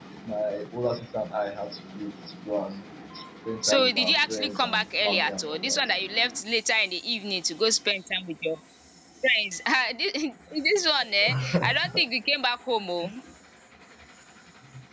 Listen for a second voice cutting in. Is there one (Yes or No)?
Yes